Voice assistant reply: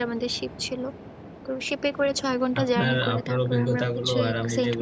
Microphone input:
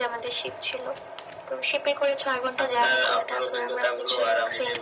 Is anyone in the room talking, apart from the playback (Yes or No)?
No